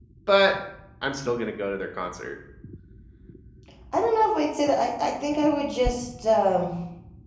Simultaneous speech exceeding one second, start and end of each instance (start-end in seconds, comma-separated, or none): none